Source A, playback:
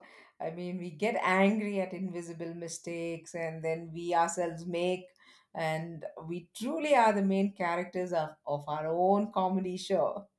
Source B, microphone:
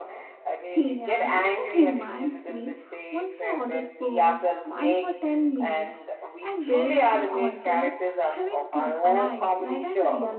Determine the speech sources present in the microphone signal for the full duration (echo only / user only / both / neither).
both